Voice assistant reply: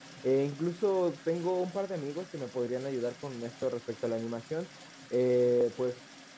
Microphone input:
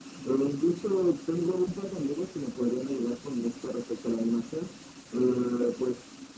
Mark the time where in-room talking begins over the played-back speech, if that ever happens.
none

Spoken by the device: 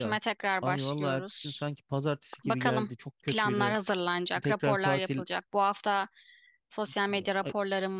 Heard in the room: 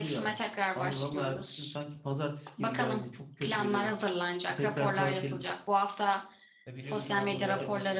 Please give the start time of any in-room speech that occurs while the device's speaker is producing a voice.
6.7 s

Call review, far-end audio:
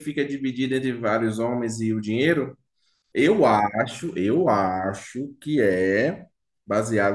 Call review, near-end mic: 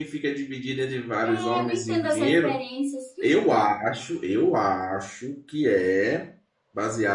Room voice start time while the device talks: 1.2 s

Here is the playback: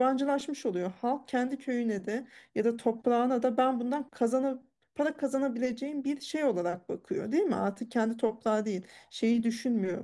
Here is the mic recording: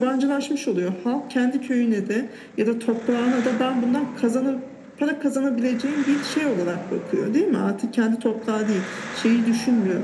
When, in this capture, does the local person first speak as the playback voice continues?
none

